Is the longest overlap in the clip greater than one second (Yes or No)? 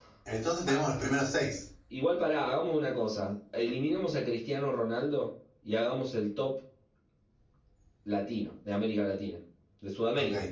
No